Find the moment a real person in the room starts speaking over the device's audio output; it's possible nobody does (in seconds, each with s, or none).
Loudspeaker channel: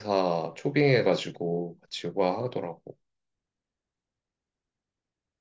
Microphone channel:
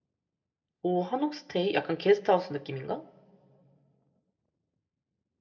0.8 s